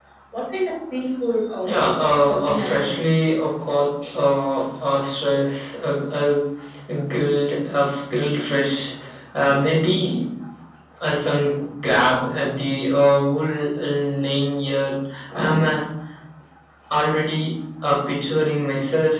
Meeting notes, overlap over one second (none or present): present